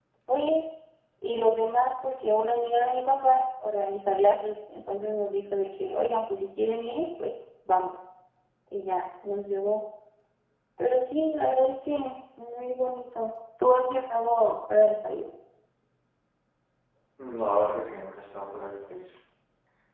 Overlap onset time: none

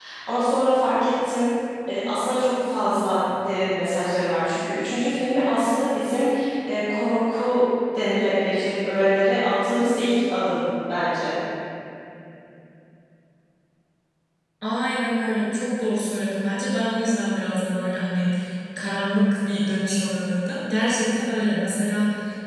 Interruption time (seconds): none

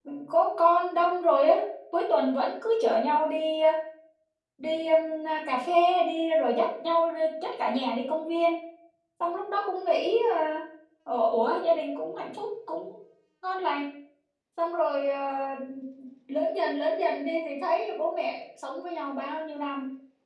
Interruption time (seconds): none

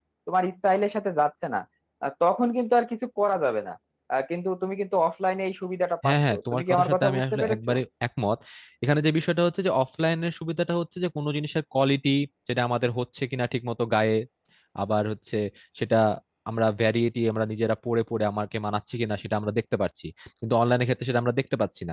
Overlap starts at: 6.0 s

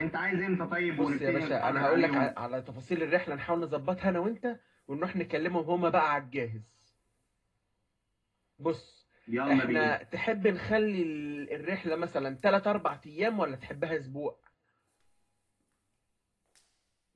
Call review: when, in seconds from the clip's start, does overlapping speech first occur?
0.9 s

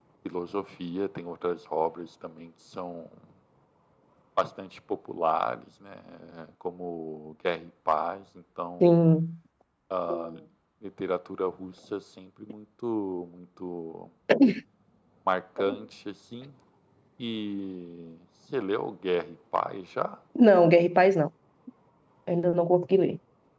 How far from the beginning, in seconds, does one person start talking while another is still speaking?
none

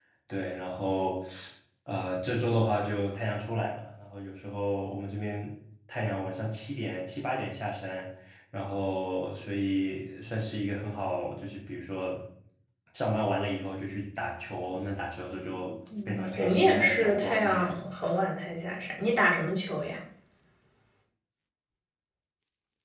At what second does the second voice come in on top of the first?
15.9 s

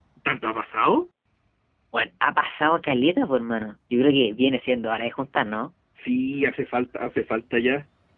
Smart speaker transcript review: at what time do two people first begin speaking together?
none

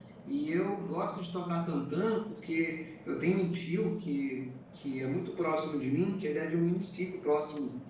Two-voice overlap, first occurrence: none

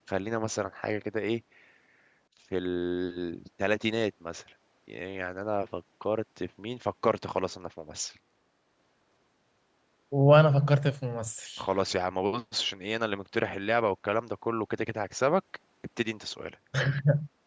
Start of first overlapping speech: none

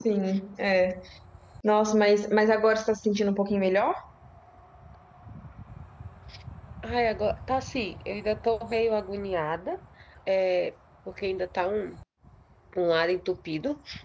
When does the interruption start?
none

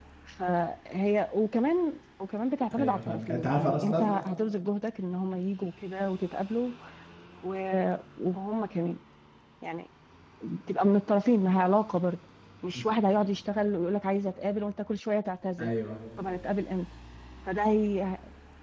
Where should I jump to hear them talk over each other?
2.7 s

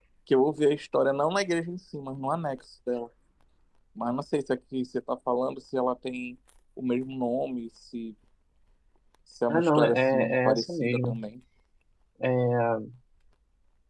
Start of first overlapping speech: 9.5 s

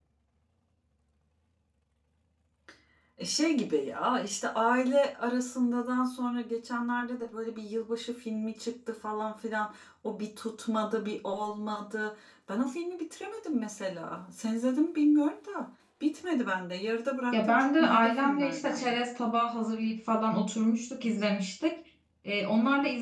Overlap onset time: 17.3 s

